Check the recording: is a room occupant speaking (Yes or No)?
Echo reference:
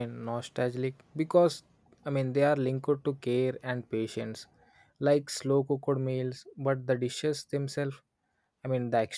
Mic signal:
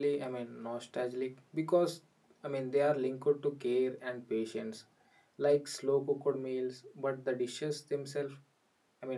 No